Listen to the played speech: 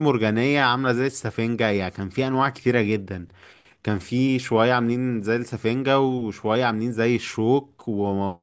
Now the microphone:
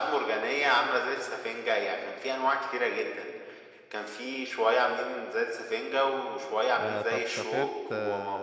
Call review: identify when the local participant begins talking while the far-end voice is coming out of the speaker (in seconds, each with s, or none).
6.8 s